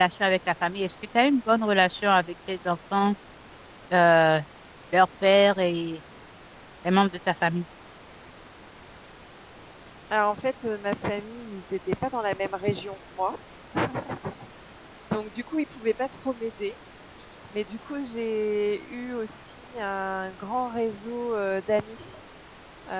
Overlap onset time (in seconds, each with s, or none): none